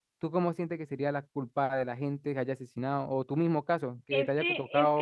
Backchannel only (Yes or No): No